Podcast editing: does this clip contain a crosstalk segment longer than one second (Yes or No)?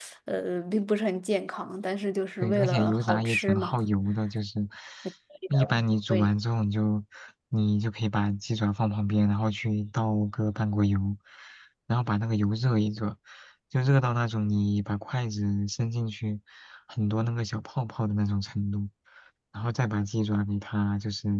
Yes